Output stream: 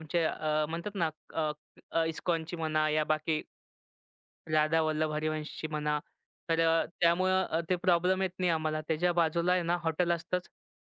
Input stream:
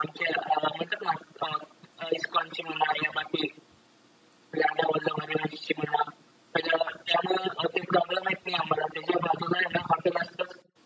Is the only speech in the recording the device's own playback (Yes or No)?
Yes